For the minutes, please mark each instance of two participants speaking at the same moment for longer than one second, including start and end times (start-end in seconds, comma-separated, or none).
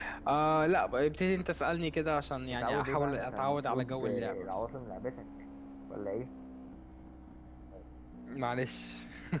2.5-4.5